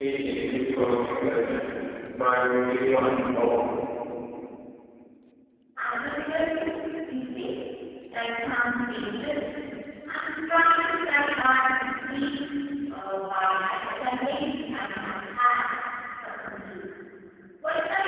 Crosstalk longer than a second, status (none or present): none